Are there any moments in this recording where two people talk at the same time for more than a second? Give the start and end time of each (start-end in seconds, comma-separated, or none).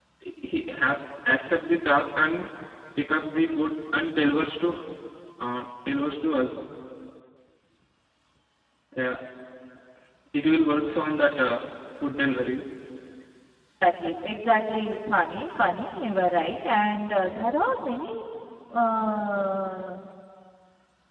none